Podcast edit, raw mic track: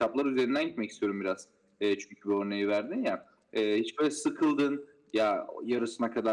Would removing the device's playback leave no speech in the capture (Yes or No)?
Yes